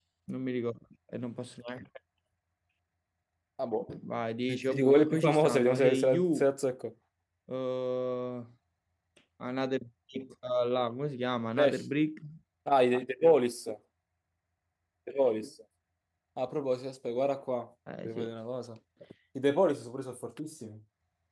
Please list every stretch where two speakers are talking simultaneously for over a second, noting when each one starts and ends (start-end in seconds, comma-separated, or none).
4.5-6.5